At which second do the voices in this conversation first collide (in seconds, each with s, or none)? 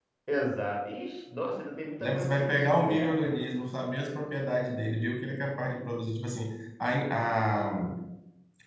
2.0 s